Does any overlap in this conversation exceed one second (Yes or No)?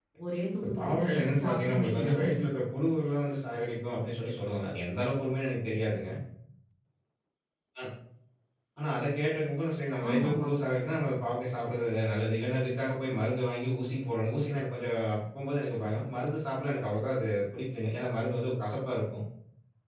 Yes